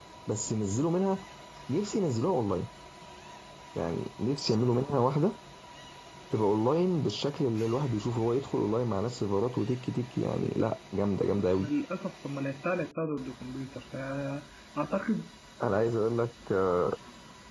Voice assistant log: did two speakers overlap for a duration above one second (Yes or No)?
No